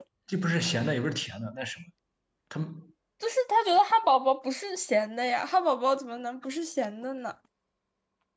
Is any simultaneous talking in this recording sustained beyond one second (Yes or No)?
No